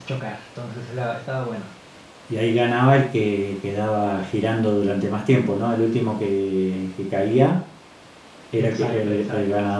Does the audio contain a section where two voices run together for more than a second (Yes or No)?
Yes